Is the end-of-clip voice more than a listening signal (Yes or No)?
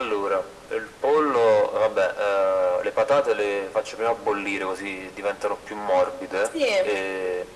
No